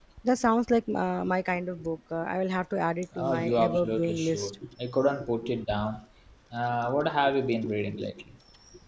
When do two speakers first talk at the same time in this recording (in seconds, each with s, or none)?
3.1 s